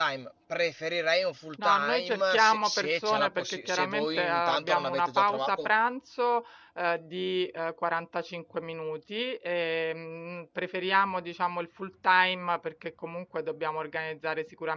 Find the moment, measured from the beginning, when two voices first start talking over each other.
2 s

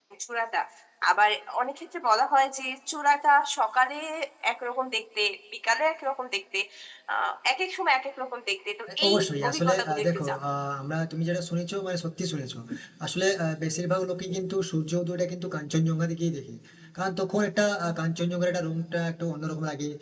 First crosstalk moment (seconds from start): 9 s

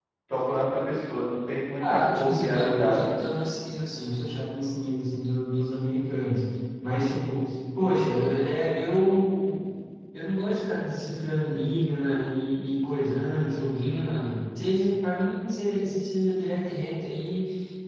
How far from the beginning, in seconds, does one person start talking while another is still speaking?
2 s

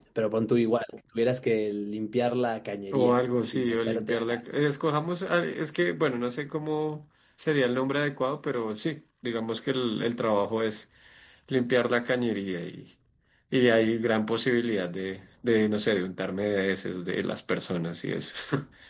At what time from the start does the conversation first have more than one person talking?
3 s

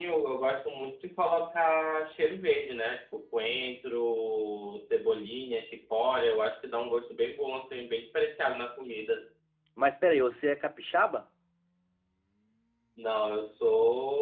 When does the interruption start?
none

